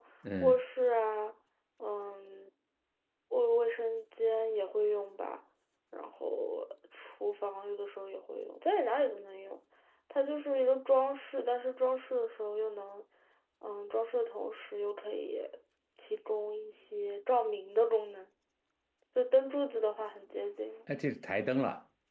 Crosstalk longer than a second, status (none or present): none